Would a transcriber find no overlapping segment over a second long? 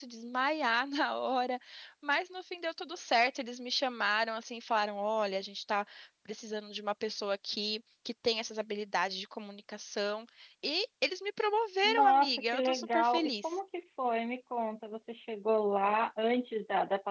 No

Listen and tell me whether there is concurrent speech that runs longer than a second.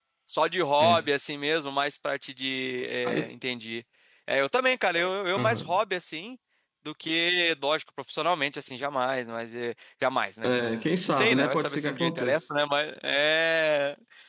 Yes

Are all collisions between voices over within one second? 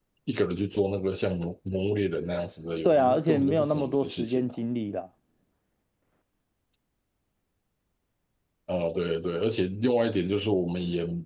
No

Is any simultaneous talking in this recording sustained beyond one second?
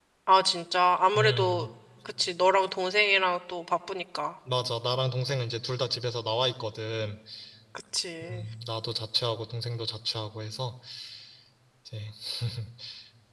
No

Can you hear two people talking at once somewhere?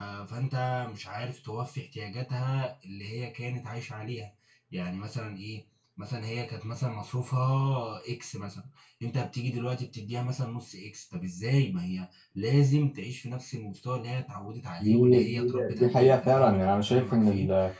Yes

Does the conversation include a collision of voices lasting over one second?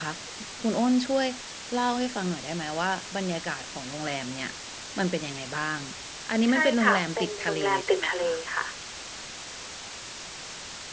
Yes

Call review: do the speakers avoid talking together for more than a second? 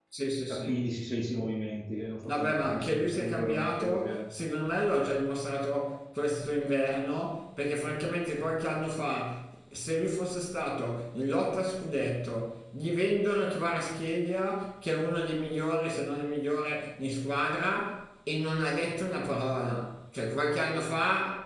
No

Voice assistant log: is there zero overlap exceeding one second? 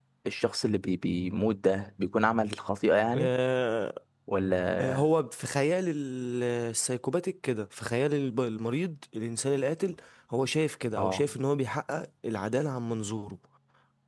Yes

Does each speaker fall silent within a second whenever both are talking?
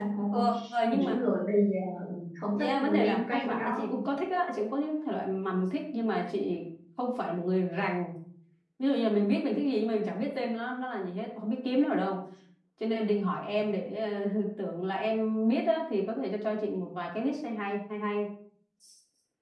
No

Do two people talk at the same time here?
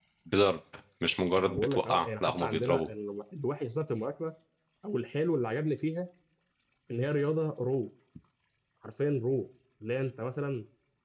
Yes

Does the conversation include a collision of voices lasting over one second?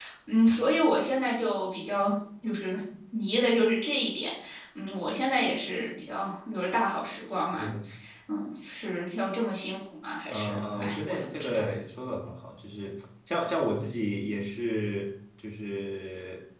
Yes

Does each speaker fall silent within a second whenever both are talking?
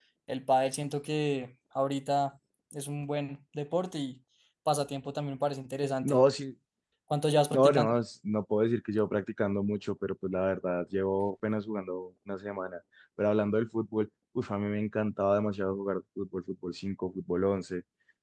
Yes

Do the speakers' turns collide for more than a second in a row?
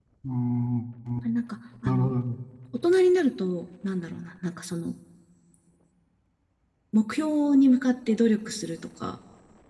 No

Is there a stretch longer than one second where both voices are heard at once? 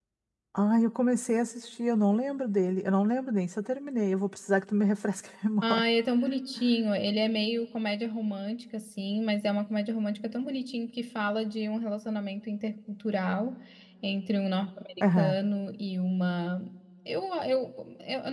No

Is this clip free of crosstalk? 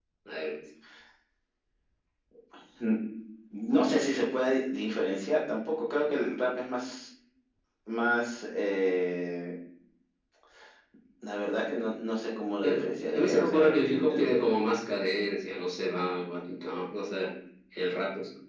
No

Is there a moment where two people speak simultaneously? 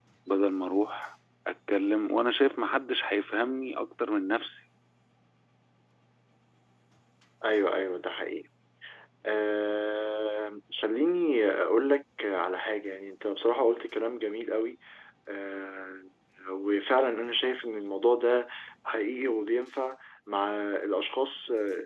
No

